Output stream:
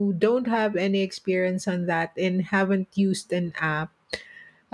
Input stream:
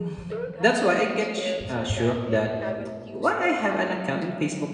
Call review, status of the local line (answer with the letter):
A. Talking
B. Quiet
A